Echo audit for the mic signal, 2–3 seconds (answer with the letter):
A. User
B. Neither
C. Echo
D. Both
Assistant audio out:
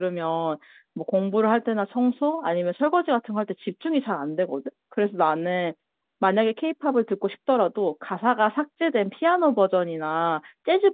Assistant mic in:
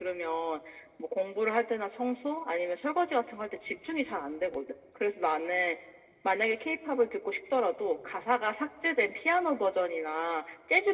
C